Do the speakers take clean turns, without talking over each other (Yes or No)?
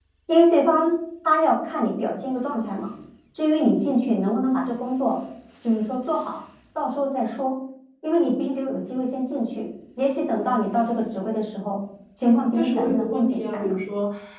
No